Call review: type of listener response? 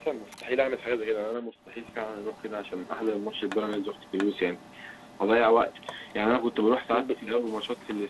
listening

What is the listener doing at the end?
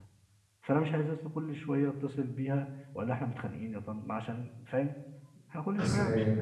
listening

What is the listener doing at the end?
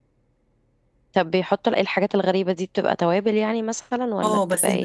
taking over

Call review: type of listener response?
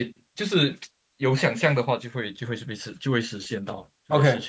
taking over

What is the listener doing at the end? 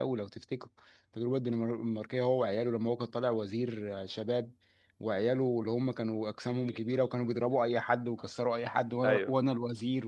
listening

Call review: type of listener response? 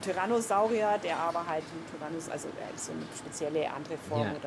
listening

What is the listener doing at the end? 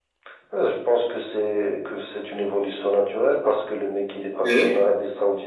listening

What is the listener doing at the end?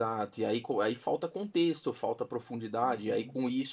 listening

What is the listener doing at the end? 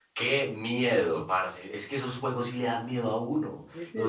listening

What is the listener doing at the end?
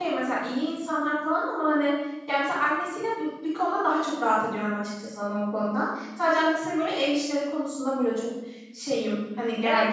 taking over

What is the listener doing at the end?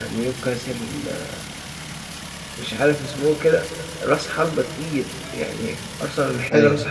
listening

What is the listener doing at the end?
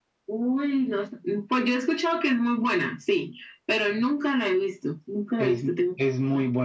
taking over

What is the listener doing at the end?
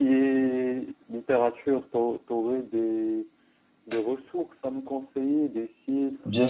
taking over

